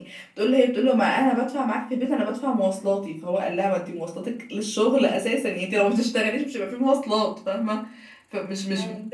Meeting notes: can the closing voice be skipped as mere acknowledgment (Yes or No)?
Yes